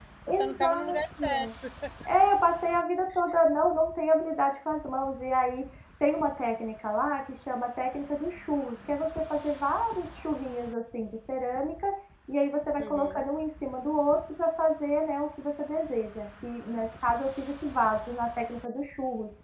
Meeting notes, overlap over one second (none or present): present